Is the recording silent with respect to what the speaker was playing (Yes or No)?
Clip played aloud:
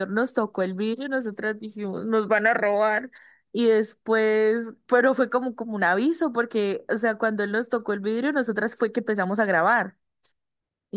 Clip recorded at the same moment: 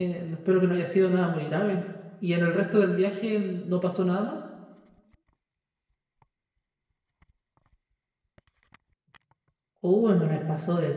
Yes